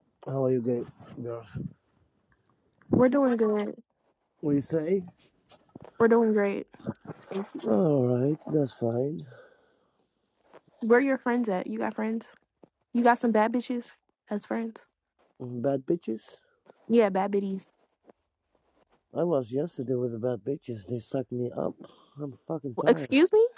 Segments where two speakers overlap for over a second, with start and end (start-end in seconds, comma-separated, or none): none